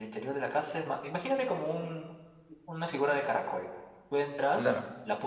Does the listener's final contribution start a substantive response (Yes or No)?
No